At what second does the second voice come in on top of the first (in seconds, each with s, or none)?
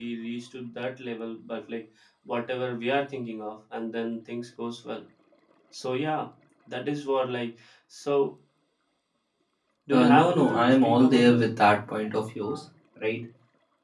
9.9 s